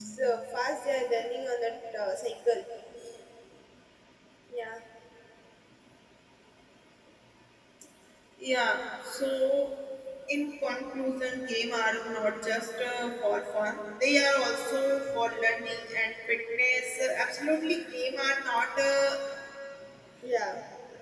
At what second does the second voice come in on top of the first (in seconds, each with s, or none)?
none